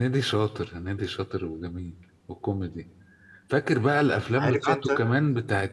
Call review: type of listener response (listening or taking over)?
listening